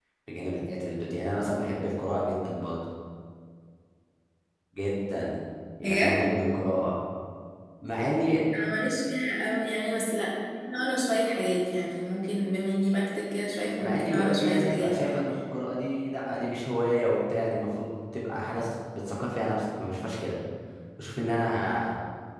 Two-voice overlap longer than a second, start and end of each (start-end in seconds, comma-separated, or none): 13.8-15.2